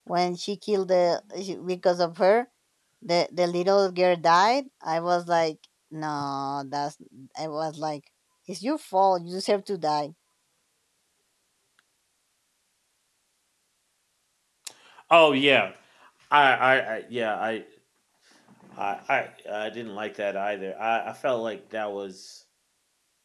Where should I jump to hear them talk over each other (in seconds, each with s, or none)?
none